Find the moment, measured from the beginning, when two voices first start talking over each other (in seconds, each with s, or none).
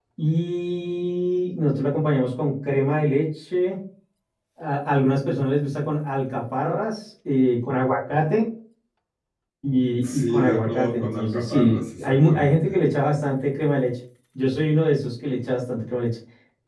10.1 s